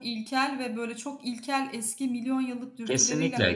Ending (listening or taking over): taking over